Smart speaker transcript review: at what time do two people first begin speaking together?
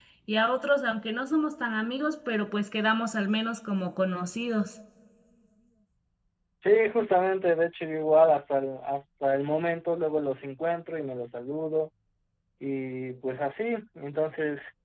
none

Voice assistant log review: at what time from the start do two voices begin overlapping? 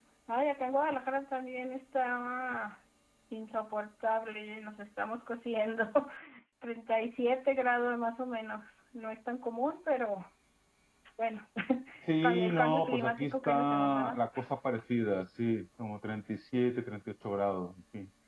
12 s

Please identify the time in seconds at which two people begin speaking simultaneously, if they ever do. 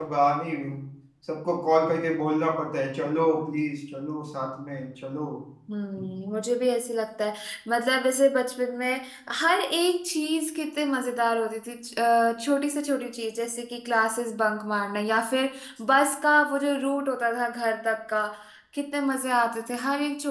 none

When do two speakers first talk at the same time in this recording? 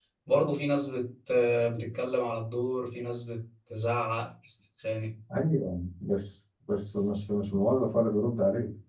none

